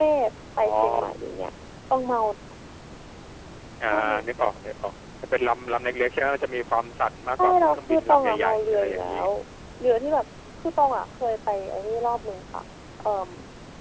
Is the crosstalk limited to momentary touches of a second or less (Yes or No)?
No